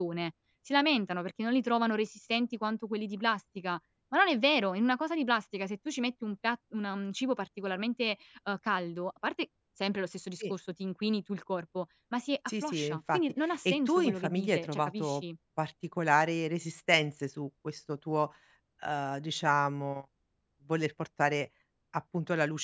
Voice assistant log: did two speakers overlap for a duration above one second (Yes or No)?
Yes